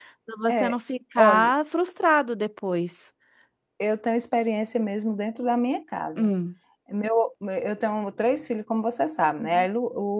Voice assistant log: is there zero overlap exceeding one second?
Yes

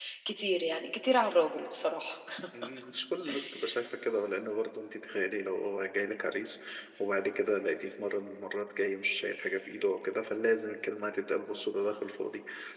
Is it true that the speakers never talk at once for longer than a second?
Yes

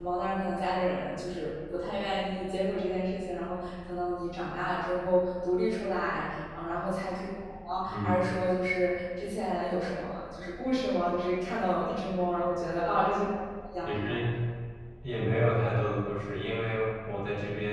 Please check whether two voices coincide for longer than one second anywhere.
No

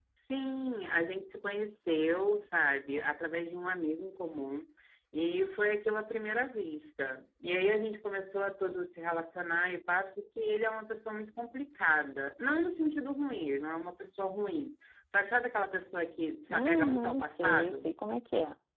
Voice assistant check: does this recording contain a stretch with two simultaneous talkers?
Yes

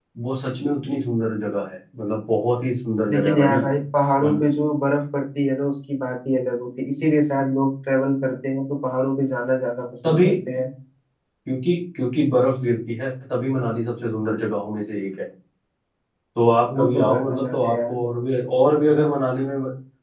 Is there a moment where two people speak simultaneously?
Yes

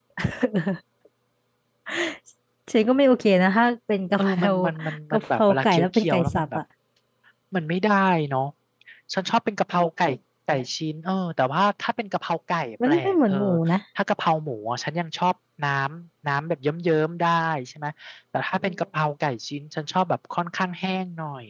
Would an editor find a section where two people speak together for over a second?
Yes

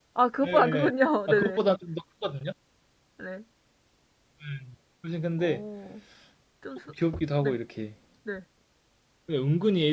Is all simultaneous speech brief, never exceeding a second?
Yes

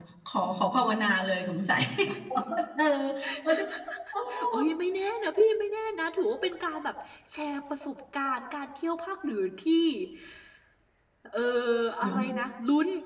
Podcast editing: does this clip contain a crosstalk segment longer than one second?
No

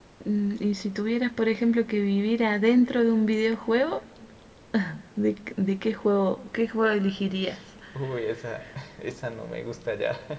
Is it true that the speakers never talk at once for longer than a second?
Yes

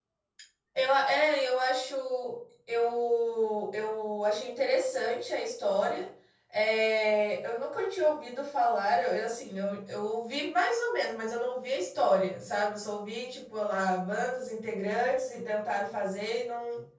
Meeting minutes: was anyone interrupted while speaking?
No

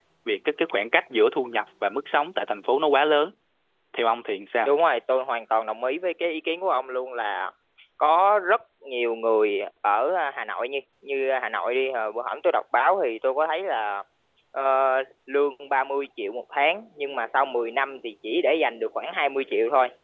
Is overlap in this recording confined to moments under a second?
Yes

